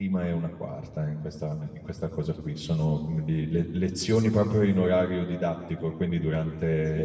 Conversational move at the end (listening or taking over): listening